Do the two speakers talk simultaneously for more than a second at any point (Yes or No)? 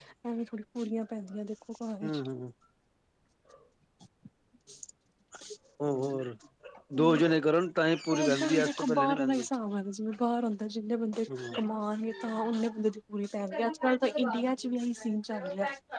Yes